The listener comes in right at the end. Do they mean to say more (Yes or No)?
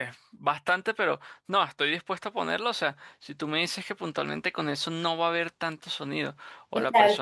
No